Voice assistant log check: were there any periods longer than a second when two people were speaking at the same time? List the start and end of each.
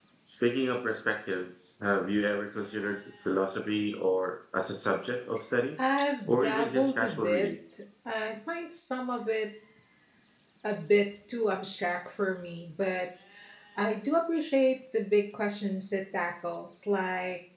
6.3-7.5

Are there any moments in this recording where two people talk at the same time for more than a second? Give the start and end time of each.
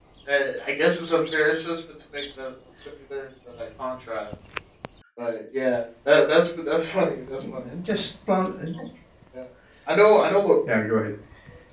none

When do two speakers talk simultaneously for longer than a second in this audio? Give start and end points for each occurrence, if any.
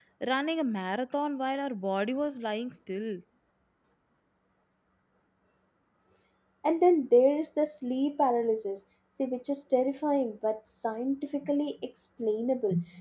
none

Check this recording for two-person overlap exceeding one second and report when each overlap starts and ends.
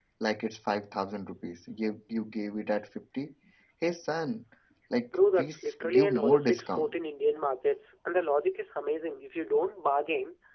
5.4-6.9

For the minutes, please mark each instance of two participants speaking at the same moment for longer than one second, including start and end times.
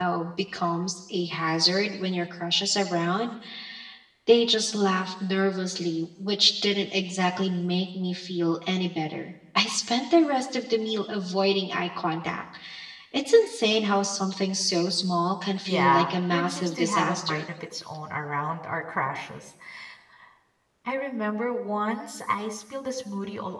15.7-17.4

